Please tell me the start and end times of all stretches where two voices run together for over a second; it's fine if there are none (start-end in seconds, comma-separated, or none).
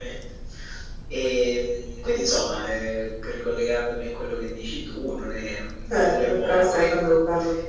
5.9-7.1